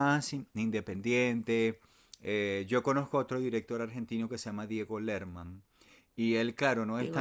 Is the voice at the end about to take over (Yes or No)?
No